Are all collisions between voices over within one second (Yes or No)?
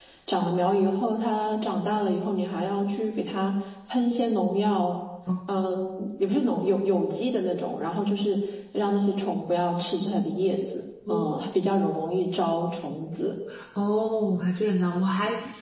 Yes